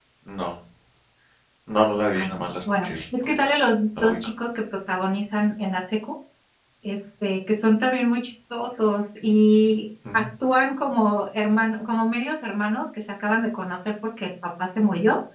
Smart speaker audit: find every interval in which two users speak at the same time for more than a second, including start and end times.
2.1-3.5

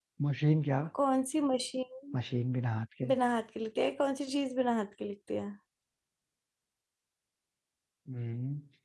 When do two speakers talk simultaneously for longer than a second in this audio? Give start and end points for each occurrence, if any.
none

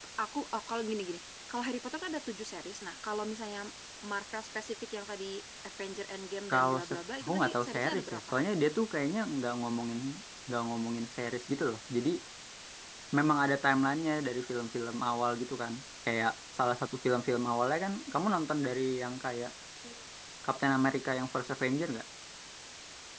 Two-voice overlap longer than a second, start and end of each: 6.5-8.3

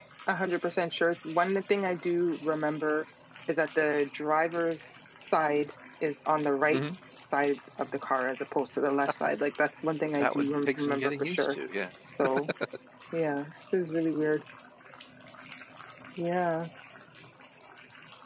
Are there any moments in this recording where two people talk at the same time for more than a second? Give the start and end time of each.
10.1-11.6

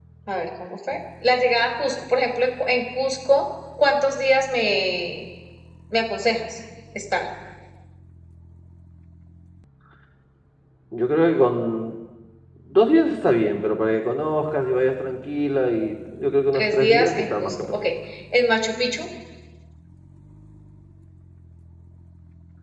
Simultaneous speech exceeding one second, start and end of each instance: 16.5-17.8

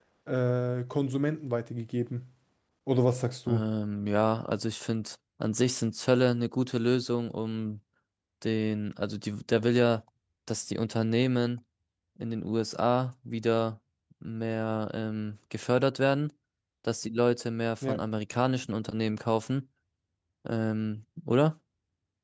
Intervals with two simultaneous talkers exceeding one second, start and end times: none

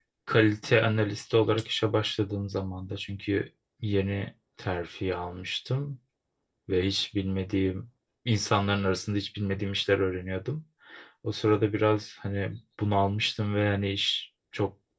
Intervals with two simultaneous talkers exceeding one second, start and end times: none

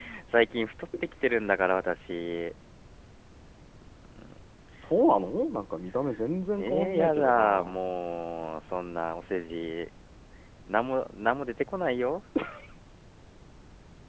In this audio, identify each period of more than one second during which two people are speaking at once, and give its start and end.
6.6-7.8

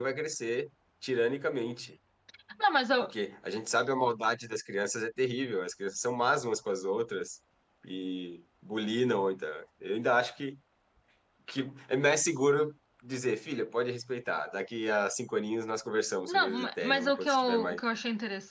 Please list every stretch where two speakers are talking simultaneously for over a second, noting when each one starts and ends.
16.3-17.8

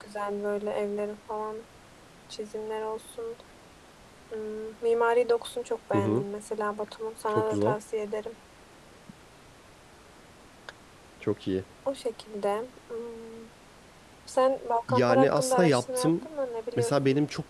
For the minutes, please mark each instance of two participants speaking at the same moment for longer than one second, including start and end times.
14.9-16.3

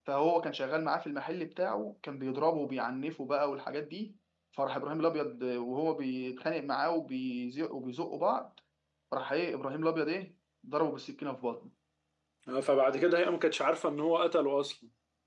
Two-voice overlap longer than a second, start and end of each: none

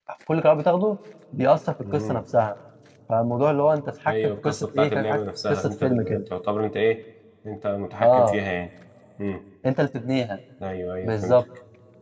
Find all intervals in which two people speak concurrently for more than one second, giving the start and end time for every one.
4.1-6.2

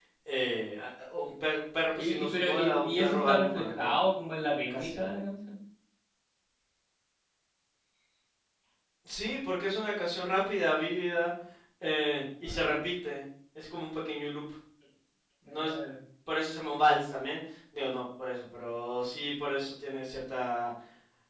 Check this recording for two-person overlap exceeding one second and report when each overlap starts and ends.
1.9-3.9

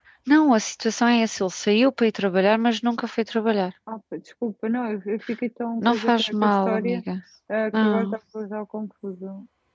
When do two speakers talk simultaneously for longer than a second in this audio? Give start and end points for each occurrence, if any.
5.8-7.0

